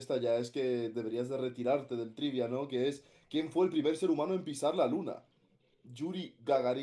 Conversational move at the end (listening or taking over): listening